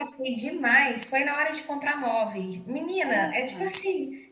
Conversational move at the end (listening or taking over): listening